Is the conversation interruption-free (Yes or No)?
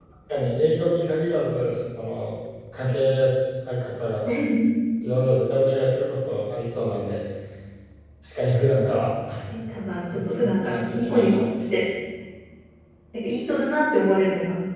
No